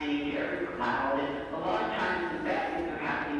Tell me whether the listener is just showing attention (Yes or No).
Yes